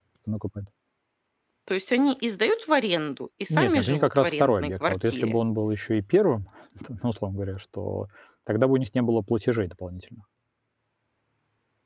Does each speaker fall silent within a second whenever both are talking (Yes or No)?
No